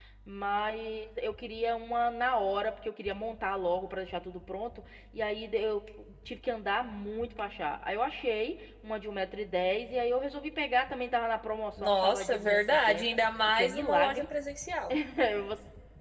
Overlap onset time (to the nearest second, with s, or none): 12 s